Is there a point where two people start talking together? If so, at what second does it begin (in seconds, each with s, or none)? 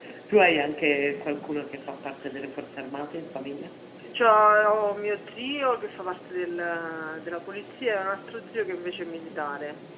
none